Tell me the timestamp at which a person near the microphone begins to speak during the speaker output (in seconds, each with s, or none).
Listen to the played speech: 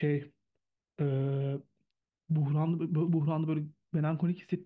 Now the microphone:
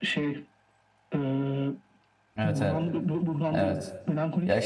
2.4 s